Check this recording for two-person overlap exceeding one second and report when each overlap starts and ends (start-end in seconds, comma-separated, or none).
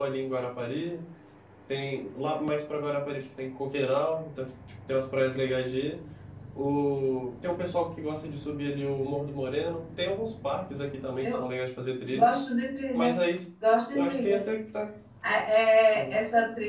none